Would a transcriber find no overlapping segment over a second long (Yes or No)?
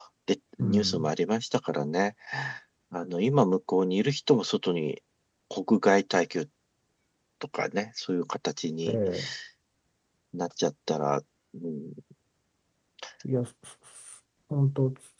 Yes